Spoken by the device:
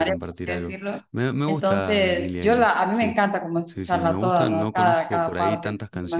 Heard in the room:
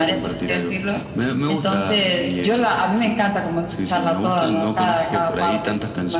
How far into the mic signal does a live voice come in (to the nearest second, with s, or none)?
none